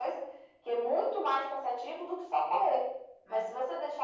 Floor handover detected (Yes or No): No